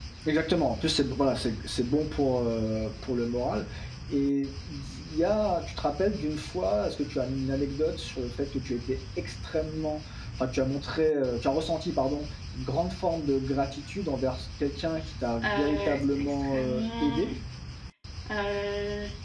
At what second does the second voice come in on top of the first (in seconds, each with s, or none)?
15.4 s